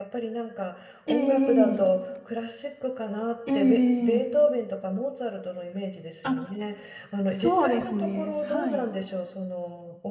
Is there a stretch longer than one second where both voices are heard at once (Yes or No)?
Yes